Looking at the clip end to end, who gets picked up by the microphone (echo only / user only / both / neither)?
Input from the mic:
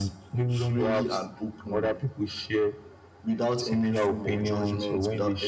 echo only